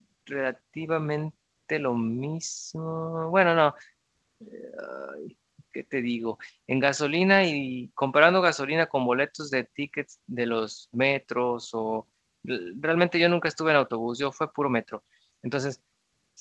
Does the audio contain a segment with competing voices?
No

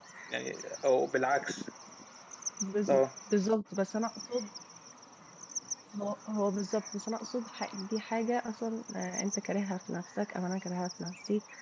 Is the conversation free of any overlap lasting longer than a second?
Yes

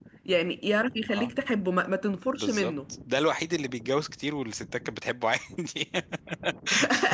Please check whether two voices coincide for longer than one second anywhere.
No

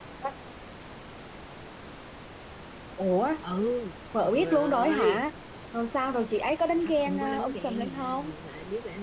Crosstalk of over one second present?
Yes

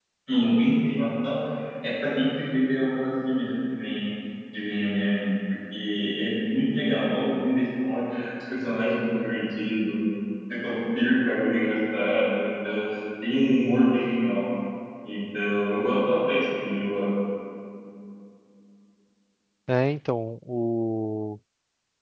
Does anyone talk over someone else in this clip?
No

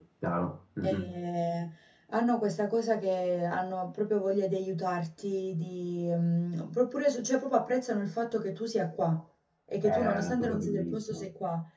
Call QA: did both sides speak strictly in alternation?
No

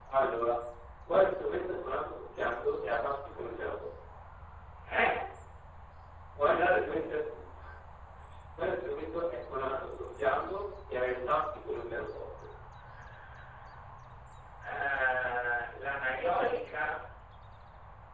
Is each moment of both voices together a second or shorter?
Yes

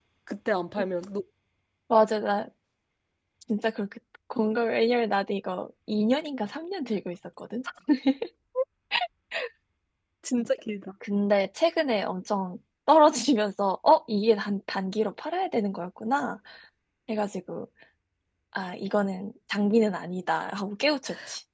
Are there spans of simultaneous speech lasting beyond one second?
No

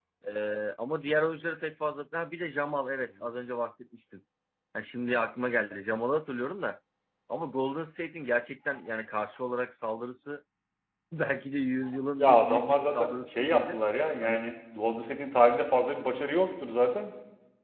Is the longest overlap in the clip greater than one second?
Yes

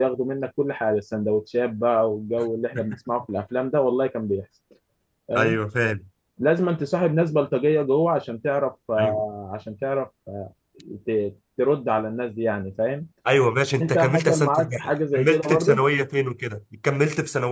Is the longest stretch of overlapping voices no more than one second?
No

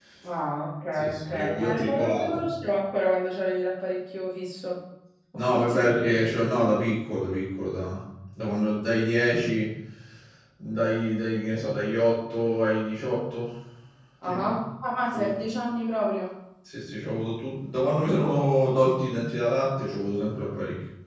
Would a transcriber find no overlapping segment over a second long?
No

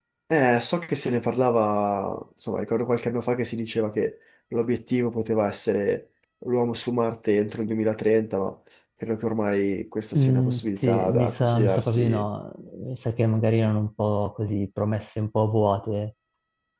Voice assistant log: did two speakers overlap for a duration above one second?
Yes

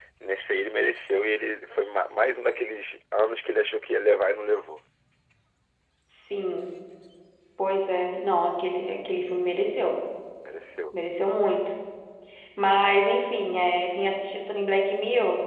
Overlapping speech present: No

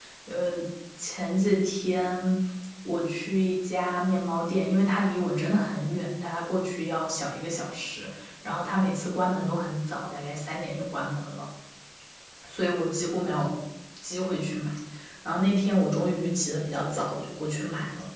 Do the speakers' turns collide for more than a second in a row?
No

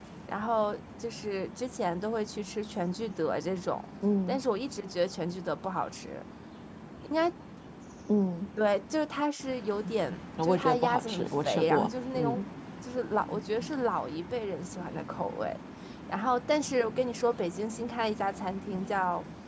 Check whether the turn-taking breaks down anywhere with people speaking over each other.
Yes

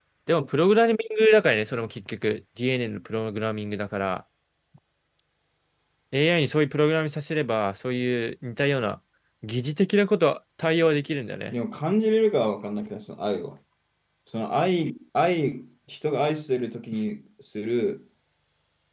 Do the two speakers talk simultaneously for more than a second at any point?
No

